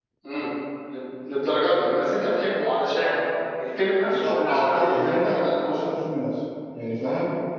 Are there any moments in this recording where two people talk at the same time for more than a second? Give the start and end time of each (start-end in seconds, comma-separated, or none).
4.1-5.7